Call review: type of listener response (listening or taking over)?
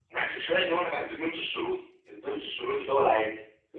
taking over